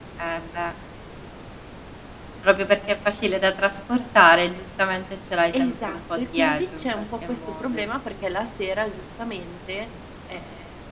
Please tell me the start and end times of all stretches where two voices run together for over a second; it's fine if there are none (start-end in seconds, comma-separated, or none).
5.5-7.9